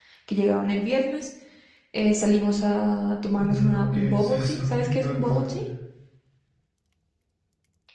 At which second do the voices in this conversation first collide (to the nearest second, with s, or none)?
3 s